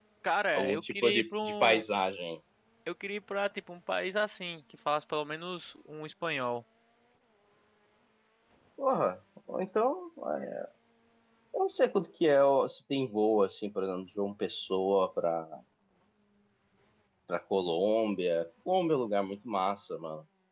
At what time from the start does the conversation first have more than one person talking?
1 s

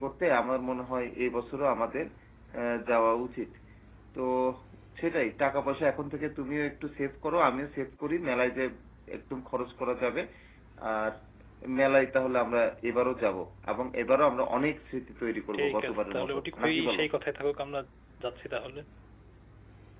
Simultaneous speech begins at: 16 s

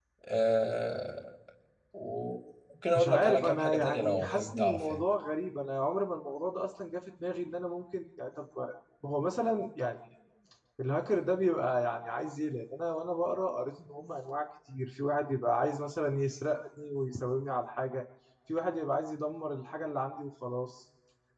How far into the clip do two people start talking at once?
3 s

